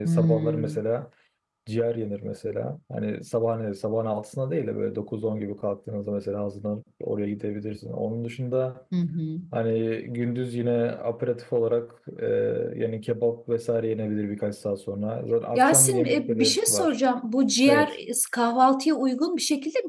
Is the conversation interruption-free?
No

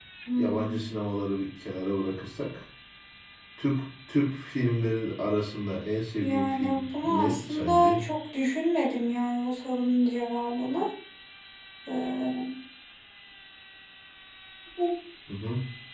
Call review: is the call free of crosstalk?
No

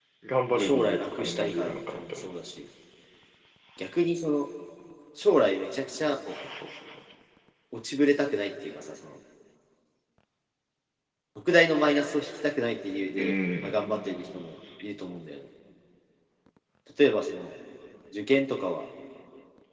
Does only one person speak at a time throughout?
No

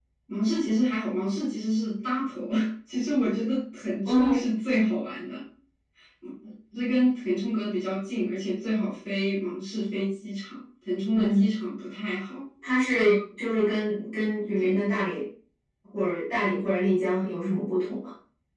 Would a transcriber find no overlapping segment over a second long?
Yes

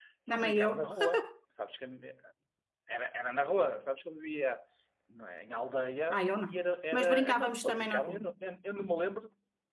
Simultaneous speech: Yes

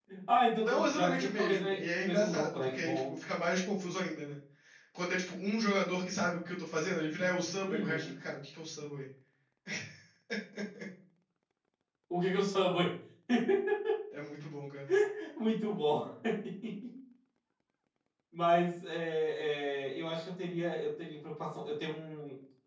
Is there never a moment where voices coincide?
No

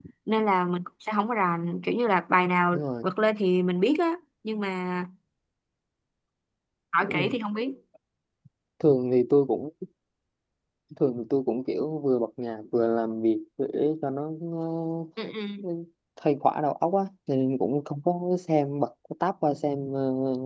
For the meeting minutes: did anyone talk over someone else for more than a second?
No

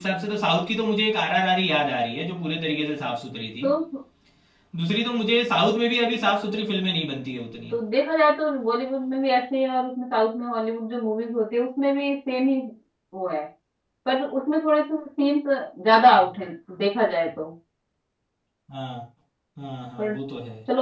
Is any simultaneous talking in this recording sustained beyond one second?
No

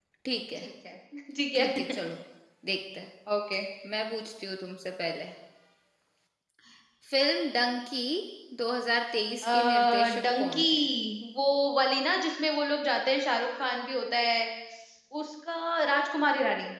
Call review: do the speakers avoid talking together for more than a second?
No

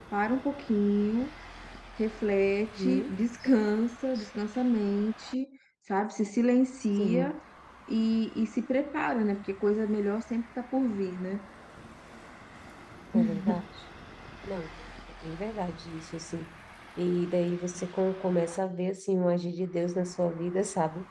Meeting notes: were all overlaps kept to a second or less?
Yes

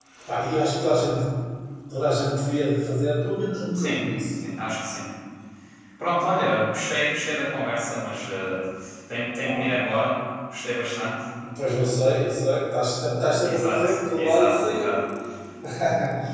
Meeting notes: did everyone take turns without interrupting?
No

